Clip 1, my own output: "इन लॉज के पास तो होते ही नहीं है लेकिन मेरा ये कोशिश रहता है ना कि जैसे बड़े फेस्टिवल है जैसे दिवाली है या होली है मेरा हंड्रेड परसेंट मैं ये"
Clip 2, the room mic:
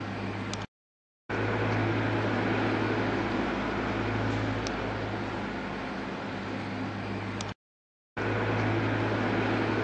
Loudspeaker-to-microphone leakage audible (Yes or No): No